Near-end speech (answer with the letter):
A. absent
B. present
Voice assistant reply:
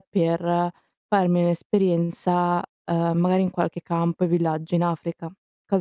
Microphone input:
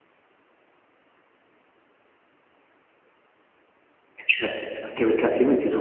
B